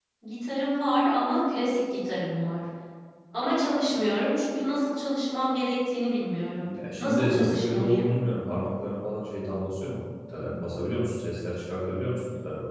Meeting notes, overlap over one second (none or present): present